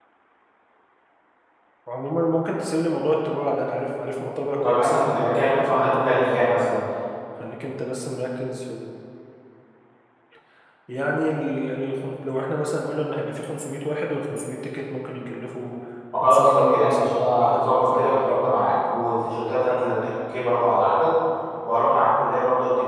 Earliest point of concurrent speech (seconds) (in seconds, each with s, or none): 4.6 s